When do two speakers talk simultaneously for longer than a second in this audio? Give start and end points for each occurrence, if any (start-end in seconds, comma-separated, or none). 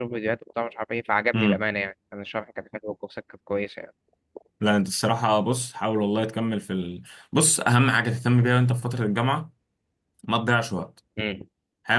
none